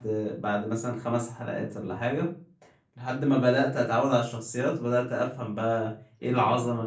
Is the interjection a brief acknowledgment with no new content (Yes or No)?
No